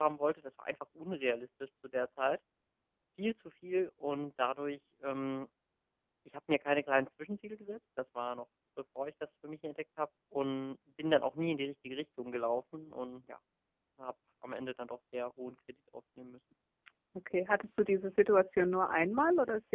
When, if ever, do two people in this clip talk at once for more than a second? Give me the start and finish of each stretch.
none

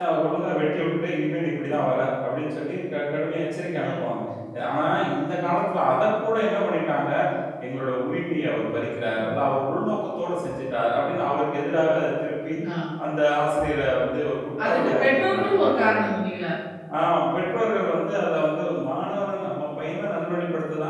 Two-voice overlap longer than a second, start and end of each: 14.6-16.0

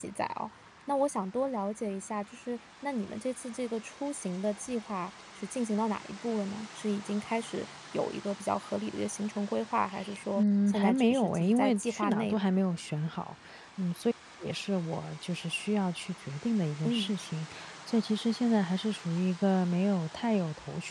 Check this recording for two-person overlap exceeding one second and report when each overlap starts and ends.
10.3-12.5

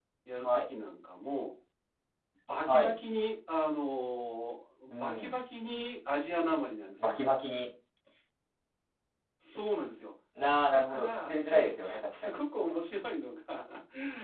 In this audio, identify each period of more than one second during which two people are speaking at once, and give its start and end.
10.7-12.4

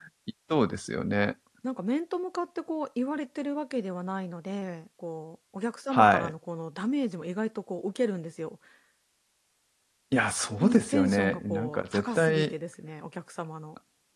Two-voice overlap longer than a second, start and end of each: 10.5-12.5

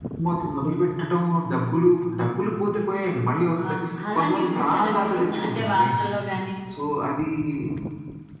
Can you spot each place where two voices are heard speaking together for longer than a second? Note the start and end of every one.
4.2-5.9

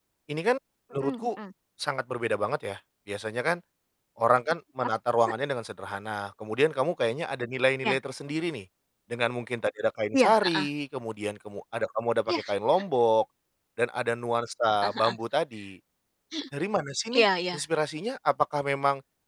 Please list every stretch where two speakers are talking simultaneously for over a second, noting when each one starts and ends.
none

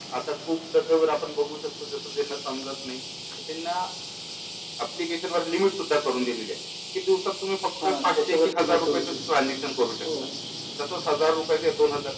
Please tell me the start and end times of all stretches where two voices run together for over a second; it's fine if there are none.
7.8-9.1

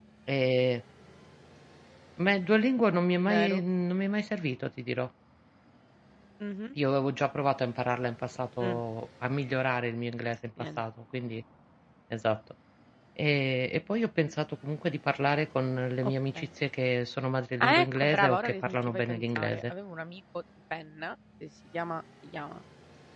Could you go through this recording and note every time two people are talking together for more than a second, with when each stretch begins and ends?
17.6-19.7

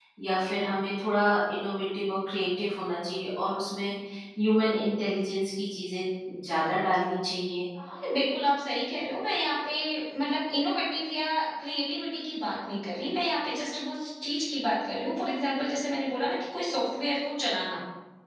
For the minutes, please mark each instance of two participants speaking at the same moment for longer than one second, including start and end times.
none

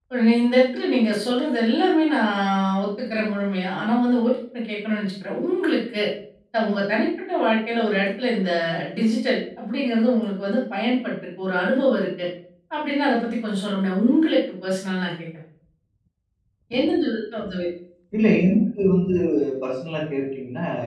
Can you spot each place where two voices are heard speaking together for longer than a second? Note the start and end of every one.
none

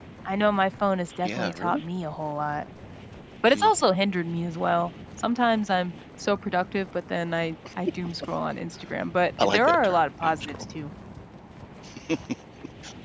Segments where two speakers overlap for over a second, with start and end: 9.4-10.6

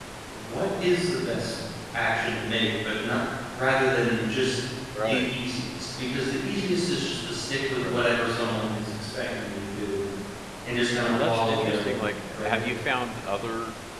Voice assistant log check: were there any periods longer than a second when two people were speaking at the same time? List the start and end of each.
11.1-12.6

